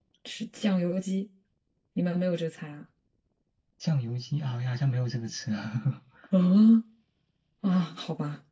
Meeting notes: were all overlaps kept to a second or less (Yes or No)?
Yes